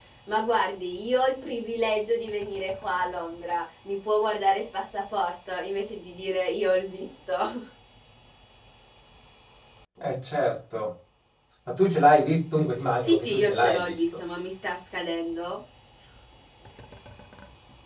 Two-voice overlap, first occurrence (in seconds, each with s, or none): 13.0 s